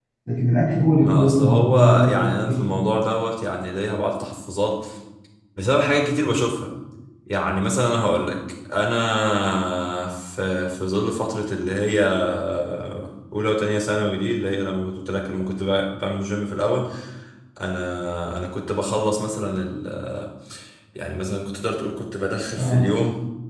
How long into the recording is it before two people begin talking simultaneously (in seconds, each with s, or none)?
1.0 s